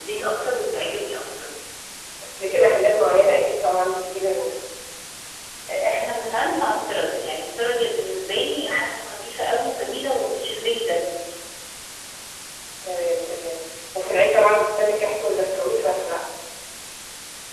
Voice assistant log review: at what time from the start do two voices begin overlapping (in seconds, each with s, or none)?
none